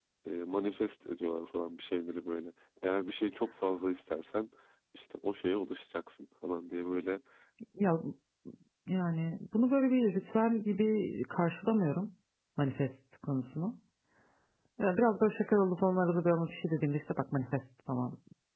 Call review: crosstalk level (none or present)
none